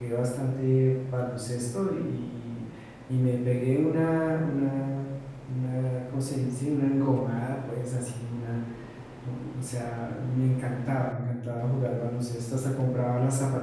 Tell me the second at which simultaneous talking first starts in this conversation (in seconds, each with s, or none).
none